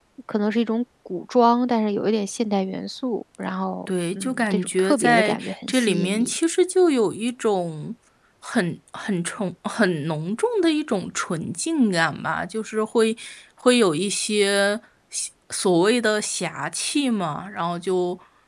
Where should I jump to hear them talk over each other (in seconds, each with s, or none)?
3.9 s